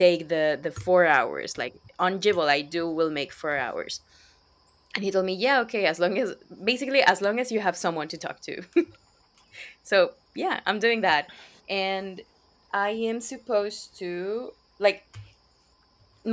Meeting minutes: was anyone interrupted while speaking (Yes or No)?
No